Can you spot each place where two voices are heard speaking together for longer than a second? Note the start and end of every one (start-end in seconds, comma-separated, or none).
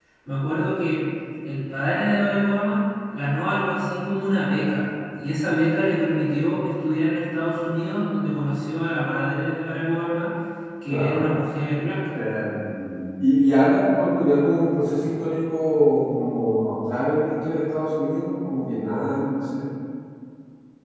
none